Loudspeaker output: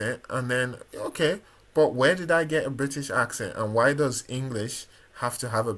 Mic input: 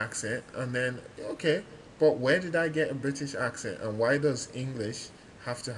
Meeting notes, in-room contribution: none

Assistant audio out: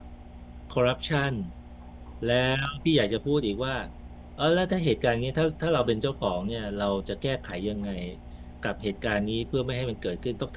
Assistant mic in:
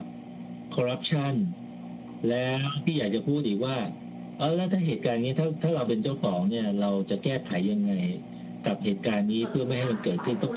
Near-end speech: present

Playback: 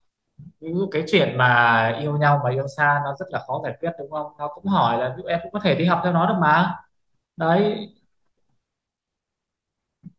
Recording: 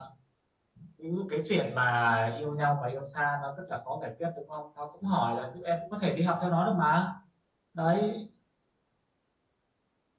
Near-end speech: none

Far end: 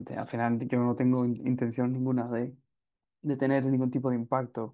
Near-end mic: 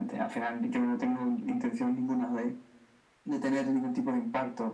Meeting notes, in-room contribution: none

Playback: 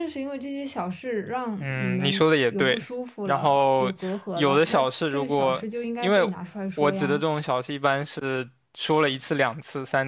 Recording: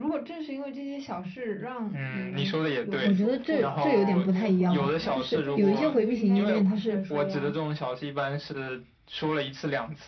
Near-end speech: present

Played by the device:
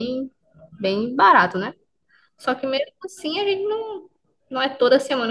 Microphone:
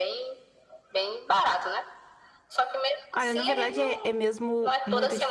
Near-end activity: present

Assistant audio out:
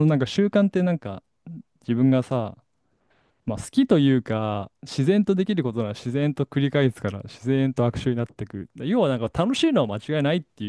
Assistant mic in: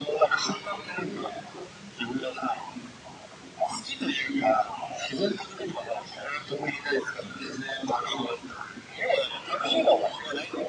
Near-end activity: none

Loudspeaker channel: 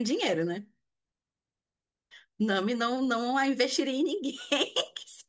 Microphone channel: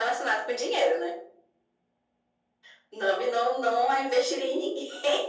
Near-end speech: none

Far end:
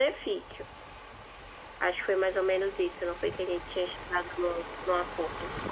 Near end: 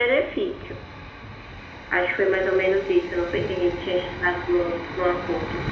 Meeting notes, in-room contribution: none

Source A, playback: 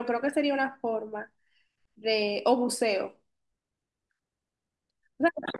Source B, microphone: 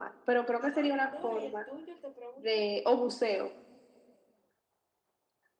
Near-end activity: present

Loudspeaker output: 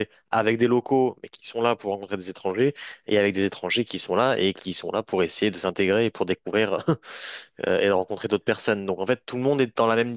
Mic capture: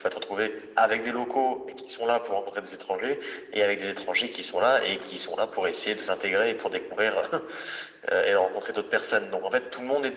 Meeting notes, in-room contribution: none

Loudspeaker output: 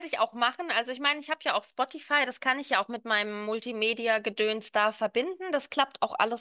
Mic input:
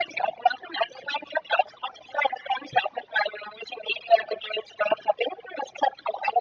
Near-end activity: none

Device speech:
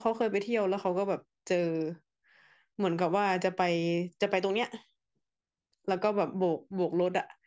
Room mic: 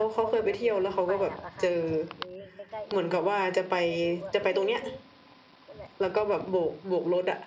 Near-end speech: present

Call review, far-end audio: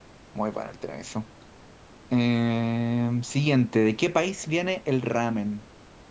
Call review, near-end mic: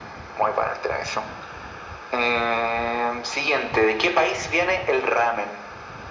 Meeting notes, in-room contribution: none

